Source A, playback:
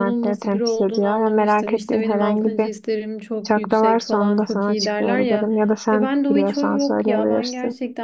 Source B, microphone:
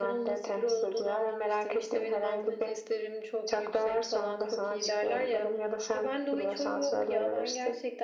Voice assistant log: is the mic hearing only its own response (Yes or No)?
Yes